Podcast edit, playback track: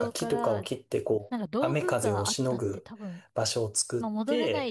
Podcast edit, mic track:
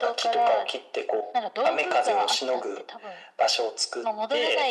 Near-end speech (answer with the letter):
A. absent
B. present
A